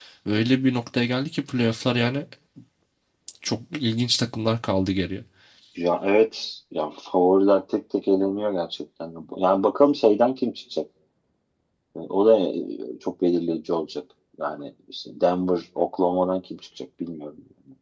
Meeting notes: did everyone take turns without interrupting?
Yes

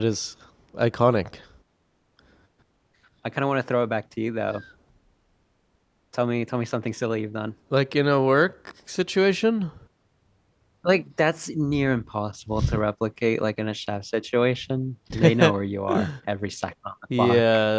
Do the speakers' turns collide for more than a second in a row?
No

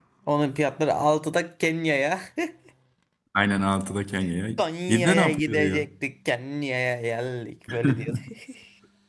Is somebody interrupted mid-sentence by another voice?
Yes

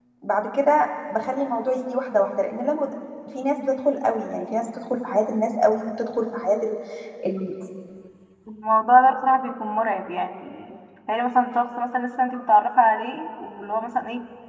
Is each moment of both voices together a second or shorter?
Yes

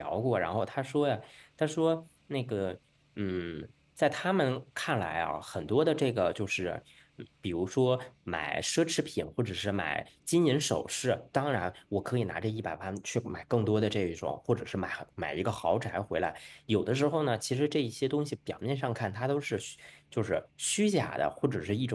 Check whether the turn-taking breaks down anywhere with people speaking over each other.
No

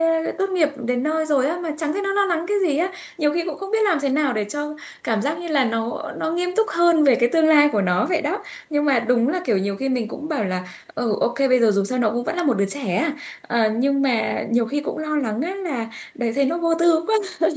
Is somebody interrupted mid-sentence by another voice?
No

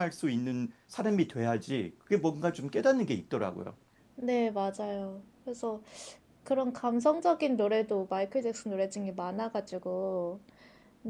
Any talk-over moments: No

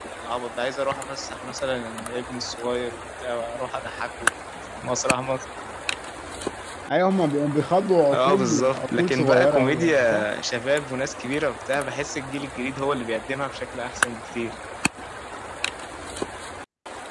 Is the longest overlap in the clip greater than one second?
Yes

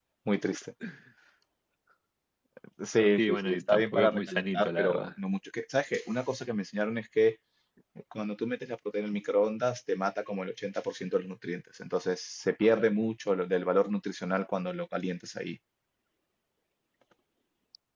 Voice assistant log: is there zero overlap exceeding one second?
No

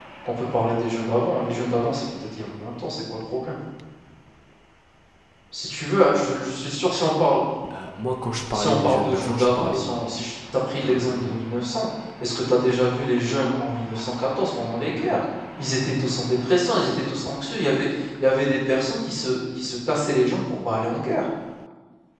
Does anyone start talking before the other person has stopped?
Yes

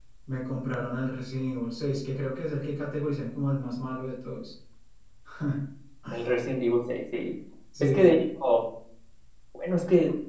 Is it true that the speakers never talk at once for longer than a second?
Yes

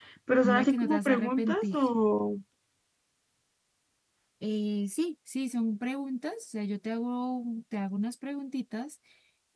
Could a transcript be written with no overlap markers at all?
No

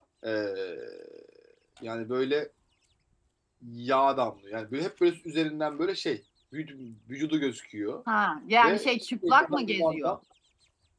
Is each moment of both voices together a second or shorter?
No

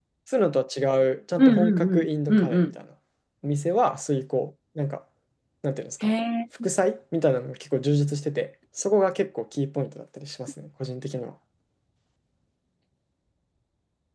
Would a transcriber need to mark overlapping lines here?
Yes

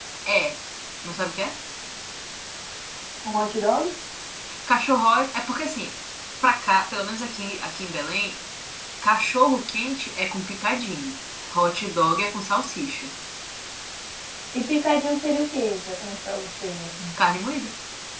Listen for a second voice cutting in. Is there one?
No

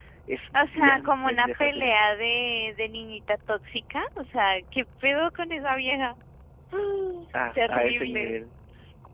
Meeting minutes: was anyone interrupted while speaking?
Yes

